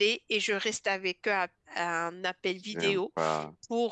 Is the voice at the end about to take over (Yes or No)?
No